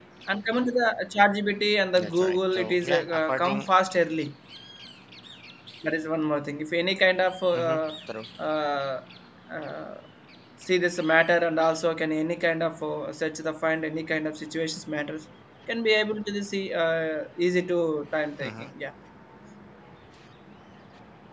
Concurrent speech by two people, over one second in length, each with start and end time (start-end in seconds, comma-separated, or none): 2.0-3.7